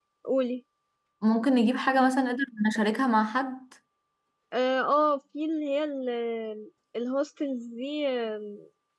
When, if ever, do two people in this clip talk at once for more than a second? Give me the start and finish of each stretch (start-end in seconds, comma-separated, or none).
none